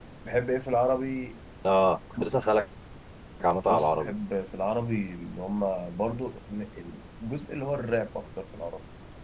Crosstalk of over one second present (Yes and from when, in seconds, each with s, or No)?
No